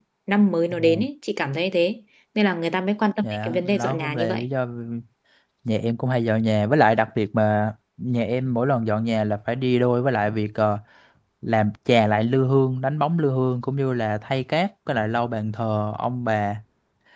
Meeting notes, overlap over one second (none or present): present